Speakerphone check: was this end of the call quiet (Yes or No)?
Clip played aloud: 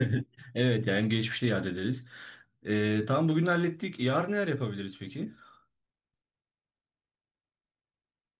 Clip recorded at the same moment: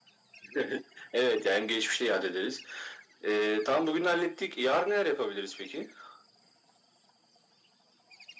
Yes